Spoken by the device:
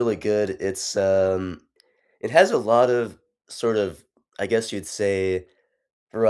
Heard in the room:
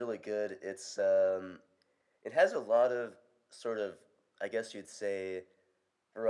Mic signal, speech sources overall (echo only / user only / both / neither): echo only